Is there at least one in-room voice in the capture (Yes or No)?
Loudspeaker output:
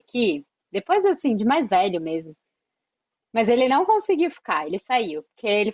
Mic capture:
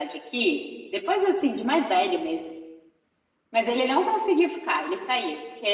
No